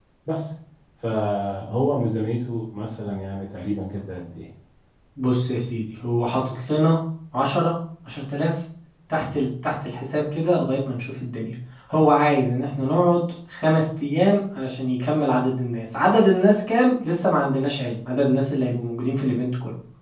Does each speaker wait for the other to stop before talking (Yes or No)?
Yes